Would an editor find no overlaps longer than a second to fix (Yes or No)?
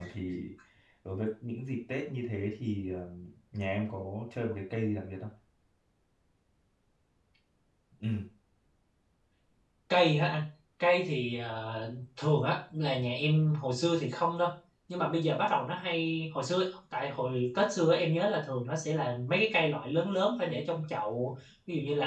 Yes